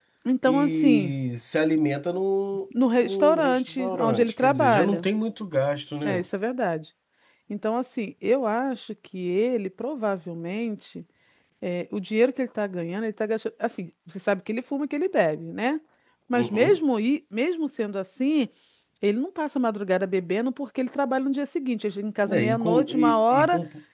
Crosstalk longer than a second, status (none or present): present